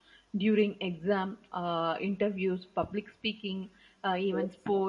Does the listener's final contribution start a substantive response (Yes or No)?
No